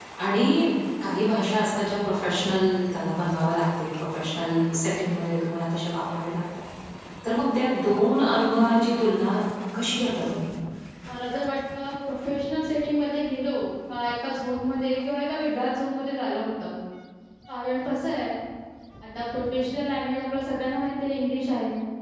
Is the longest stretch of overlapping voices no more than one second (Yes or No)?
Yes